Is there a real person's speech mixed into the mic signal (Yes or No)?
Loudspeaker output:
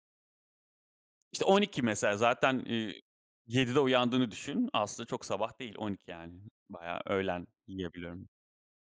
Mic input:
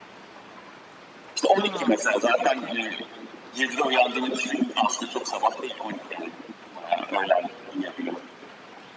Yes